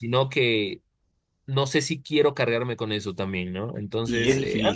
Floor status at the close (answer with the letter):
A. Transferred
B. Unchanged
A